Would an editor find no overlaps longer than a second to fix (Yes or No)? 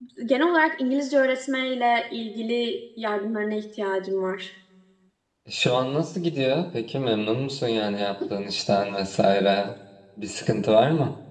Yes